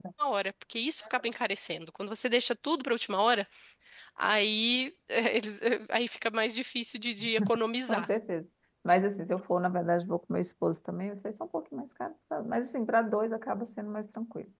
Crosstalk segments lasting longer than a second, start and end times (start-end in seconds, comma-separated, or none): none